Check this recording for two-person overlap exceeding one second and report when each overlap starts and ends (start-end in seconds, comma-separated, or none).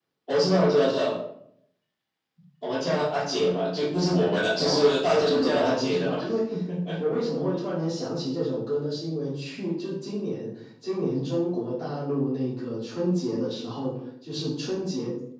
4.6-6.2